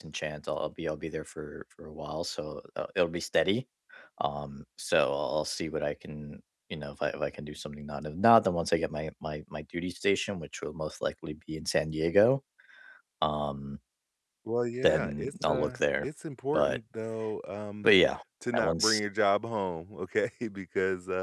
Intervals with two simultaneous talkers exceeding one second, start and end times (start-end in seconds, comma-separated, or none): 14.8-16.1